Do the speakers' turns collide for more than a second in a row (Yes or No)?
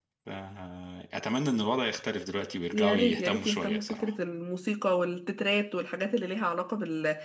Yes